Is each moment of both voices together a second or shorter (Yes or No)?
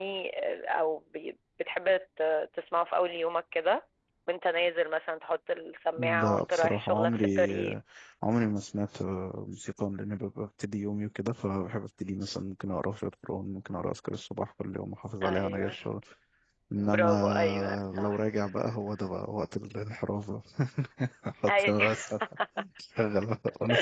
No